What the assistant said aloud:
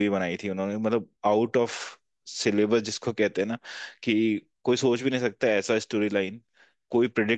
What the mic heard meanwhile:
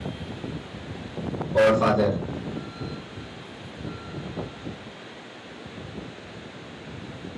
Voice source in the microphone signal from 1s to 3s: user only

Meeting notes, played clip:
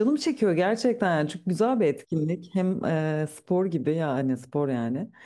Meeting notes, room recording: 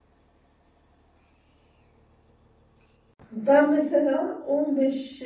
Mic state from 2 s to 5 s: user only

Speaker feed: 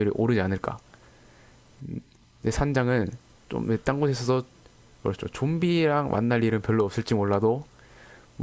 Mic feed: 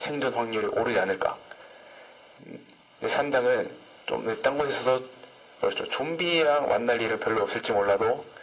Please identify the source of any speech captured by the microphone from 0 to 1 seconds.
echo only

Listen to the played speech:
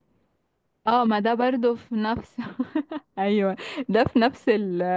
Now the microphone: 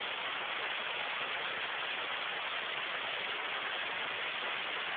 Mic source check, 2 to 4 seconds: neither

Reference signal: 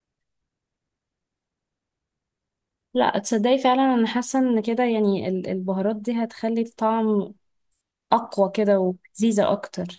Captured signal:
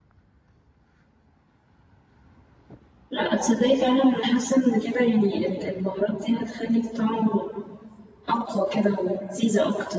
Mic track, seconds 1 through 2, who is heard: neither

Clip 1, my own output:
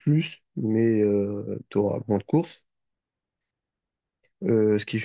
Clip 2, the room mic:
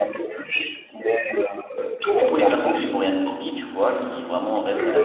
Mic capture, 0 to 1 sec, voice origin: echo only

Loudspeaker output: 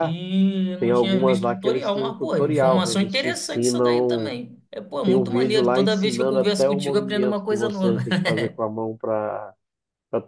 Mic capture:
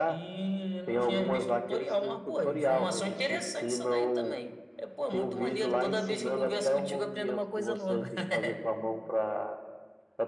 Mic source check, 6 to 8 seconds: echo only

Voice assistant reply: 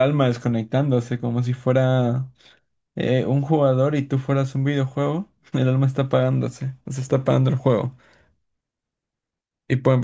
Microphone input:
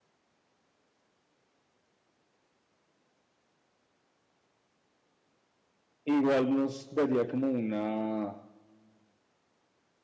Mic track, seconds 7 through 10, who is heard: user only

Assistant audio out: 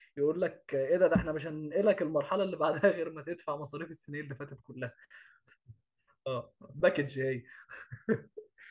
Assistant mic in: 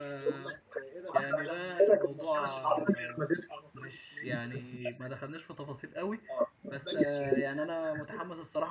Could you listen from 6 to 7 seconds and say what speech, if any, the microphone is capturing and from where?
both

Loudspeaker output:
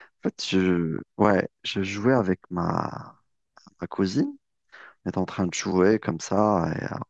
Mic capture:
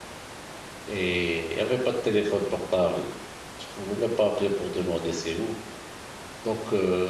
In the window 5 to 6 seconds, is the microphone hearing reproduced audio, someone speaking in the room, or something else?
user only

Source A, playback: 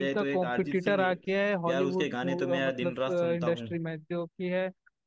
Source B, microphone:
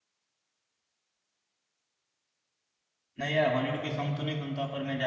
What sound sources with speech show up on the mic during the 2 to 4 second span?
user only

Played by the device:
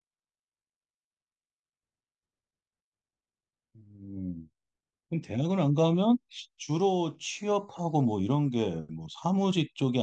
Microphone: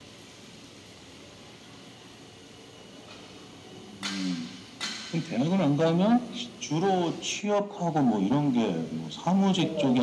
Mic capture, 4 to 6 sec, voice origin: echo only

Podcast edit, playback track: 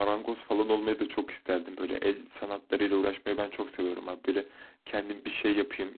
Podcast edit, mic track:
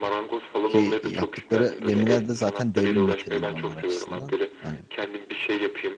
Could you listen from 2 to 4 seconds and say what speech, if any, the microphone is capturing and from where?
both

